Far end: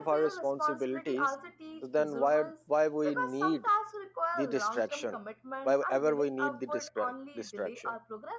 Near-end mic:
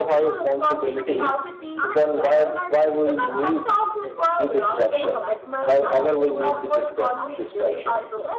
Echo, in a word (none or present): present